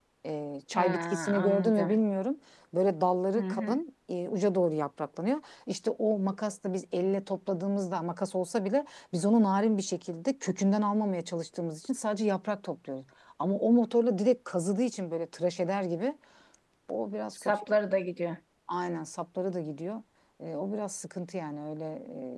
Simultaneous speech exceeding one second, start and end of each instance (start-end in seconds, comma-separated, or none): 0.7-2.0